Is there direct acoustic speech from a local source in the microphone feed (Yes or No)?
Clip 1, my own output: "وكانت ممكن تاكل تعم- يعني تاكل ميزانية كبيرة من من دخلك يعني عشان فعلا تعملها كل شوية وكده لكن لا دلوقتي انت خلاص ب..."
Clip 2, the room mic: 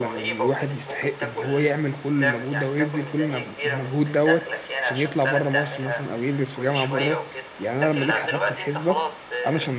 Yes